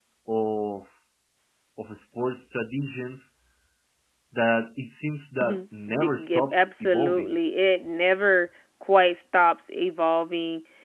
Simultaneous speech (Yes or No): Yes